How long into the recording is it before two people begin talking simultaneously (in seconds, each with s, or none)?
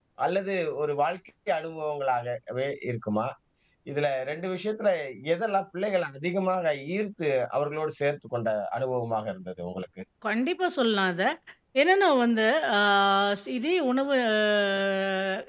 none